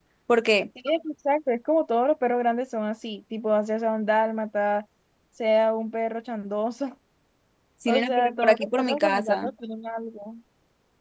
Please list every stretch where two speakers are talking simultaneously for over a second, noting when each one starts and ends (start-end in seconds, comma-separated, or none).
7.9-9.5